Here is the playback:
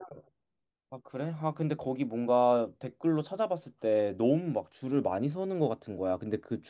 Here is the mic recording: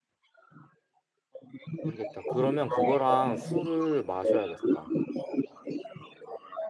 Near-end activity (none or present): present